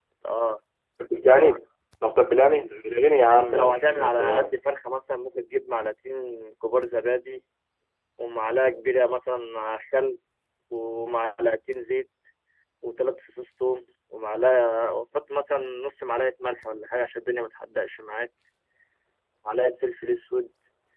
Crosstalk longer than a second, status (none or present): present